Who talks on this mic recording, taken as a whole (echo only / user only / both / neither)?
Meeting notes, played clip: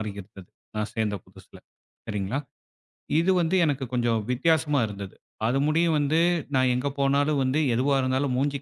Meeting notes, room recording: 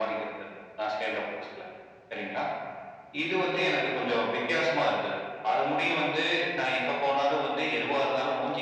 echo only